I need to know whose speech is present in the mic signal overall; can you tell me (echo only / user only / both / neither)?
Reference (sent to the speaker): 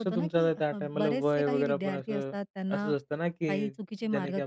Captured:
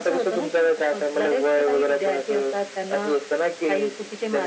echo only